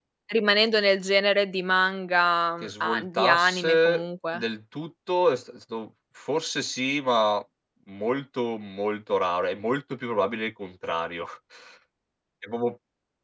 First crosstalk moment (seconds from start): 2.6 s

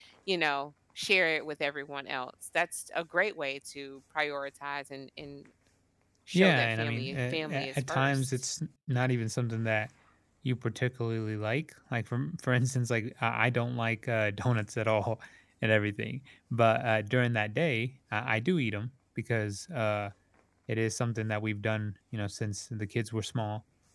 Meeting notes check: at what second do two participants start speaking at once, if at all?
6.3 s

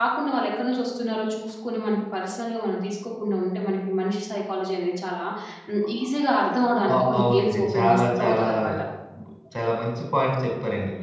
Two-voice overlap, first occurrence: 6.7 s

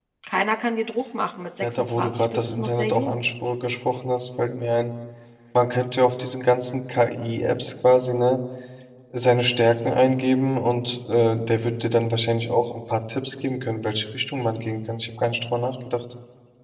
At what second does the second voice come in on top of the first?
1.6 s

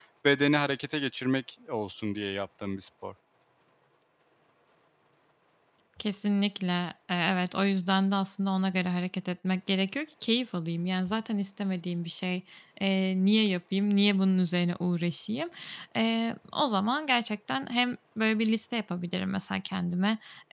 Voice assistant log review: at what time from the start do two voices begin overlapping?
none

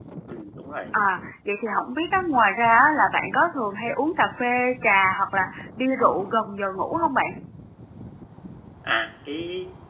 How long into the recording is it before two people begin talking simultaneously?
none

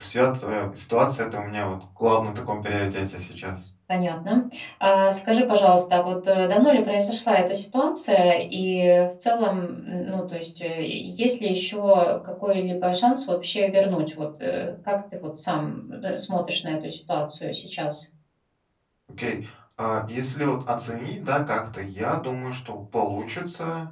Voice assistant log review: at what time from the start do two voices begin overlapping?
none

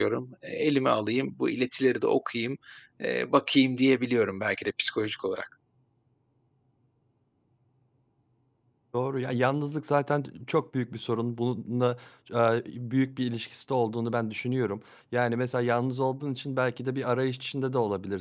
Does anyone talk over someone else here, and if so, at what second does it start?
none

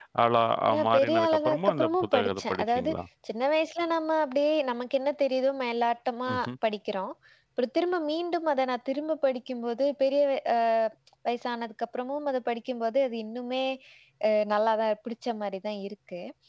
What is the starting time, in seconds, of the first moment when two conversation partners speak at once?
0.9 s

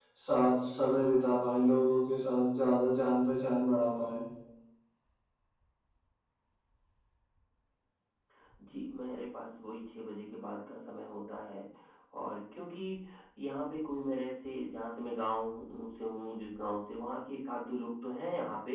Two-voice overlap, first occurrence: none

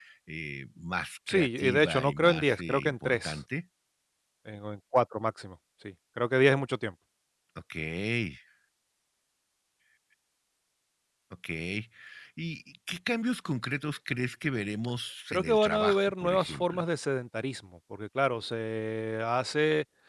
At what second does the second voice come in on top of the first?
1.3 s

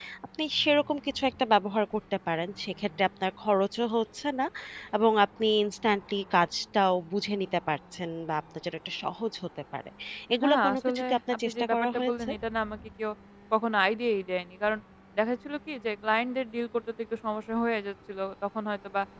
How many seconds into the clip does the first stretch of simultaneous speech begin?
10.4 s

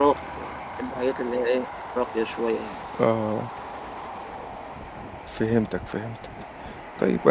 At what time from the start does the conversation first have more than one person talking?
none

